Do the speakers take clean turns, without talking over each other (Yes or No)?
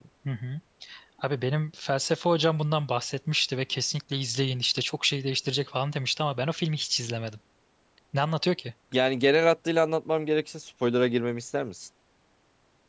Yes